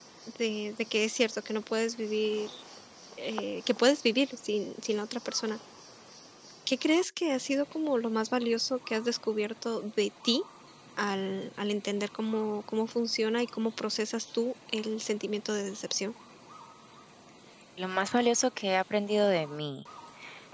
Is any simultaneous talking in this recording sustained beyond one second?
No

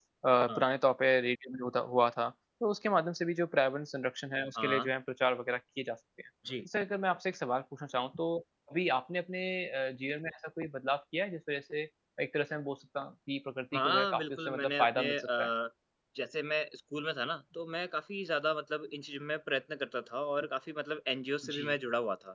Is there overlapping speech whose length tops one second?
Yes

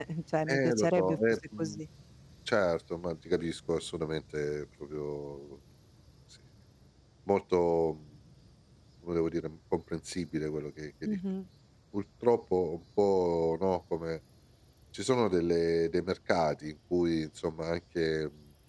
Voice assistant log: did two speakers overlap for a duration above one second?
Yes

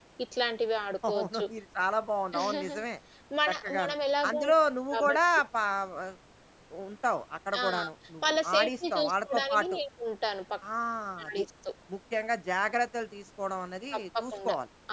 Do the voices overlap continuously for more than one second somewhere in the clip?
Yes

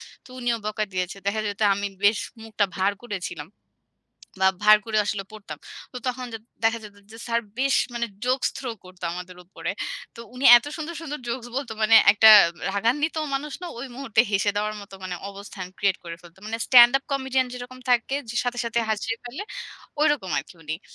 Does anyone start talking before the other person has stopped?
No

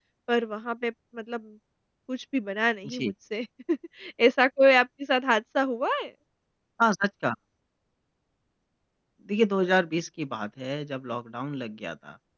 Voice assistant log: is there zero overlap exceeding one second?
Yes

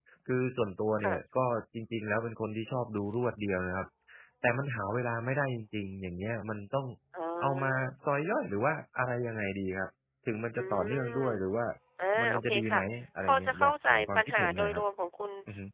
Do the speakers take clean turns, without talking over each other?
No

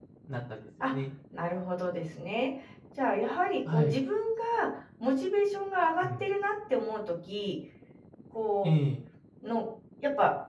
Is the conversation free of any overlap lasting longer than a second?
Yes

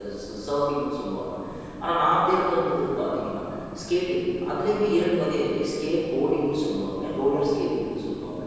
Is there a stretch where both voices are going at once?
No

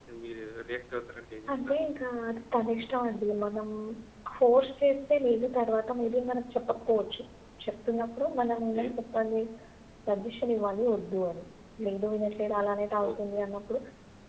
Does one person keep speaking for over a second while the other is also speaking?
No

